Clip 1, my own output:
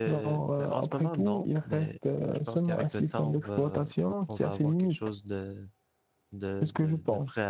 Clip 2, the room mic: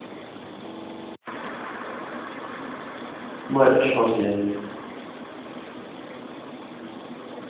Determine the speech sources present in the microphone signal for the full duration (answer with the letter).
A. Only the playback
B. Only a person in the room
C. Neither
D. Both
B